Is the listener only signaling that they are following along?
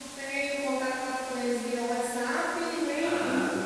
Yes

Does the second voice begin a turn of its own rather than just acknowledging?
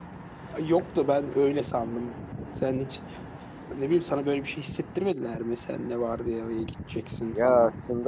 Yes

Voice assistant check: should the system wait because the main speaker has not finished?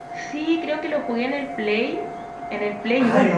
No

